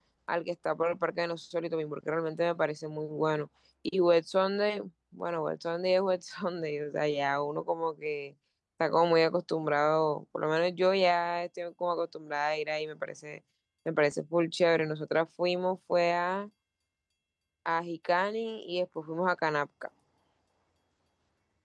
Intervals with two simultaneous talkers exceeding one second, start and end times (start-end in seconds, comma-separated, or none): none